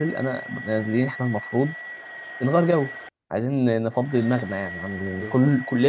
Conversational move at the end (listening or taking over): listening